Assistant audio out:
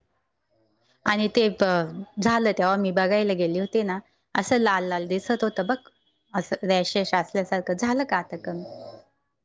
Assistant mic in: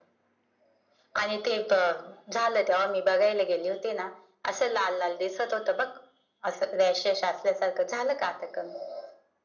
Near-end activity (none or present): none